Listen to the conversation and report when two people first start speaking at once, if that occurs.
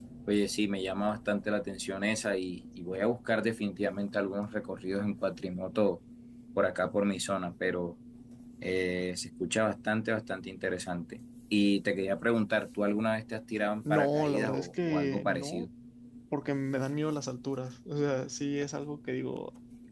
13.8 s

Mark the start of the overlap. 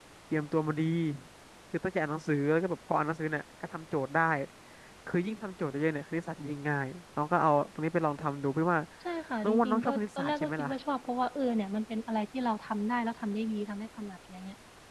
9.4 s

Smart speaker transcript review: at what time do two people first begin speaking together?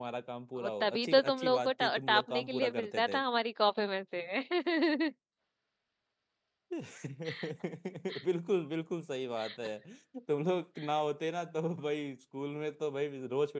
0.6 s

